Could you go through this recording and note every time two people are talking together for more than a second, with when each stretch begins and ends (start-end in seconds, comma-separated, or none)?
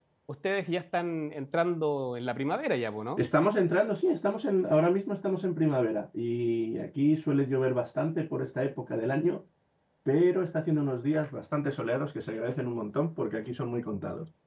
none